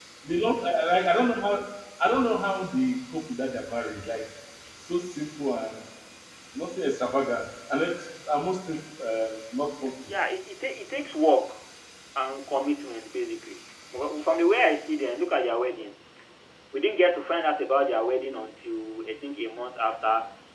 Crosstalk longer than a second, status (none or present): none